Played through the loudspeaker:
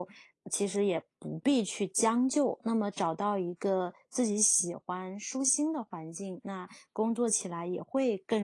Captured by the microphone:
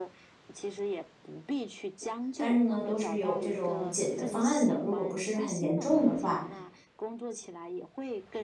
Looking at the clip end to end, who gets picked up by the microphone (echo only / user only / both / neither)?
both